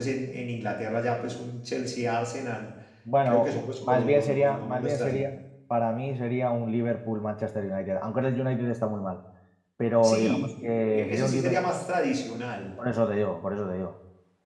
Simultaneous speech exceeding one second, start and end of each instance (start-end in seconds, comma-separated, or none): 3.2-5.2, 10.0-11.7